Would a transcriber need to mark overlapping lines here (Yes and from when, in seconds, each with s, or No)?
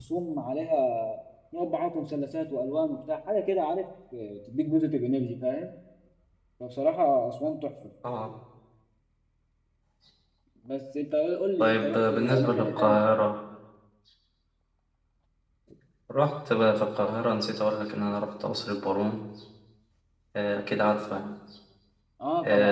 Yes, from 11.6 s